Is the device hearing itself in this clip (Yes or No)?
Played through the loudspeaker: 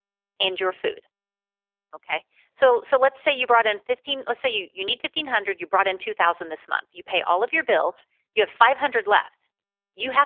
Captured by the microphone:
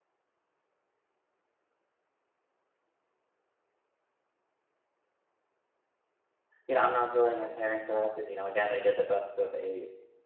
No